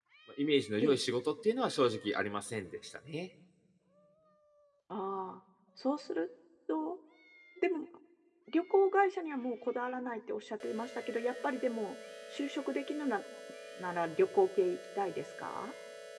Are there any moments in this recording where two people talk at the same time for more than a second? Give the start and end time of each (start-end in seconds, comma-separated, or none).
none